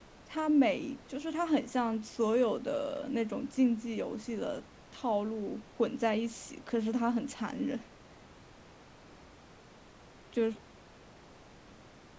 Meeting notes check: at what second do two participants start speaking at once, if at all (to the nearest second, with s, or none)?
none